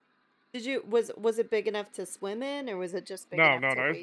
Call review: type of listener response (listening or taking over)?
taking over